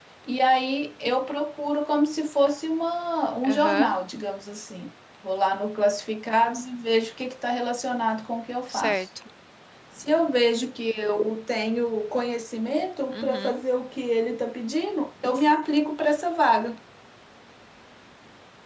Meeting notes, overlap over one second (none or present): none